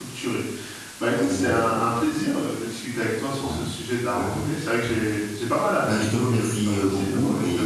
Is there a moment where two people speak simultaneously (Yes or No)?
Yes